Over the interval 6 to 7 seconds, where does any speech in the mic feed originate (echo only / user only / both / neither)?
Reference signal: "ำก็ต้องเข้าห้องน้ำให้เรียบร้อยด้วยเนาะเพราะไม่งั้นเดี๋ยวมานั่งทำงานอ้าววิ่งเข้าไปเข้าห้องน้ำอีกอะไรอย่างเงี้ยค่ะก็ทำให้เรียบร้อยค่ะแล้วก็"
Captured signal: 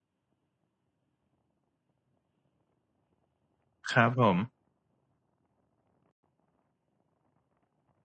neither